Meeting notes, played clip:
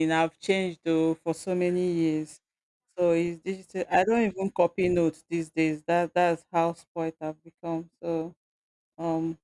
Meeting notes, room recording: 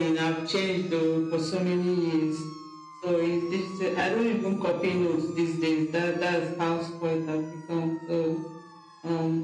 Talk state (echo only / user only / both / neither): echo only